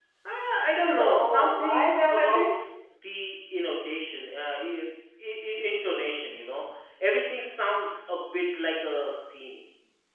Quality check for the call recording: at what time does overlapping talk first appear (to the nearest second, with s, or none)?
1 s